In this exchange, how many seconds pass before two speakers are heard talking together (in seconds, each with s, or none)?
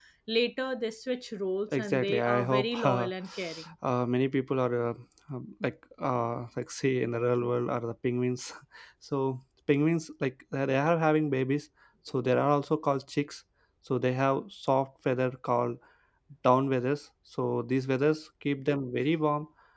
1.7 s